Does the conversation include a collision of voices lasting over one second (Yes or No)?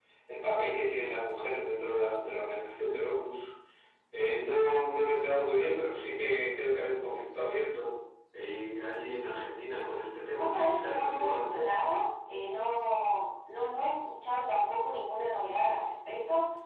Yes